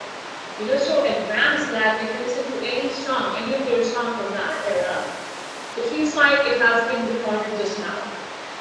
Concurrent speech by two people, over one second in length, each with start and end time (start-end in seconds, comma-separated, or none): none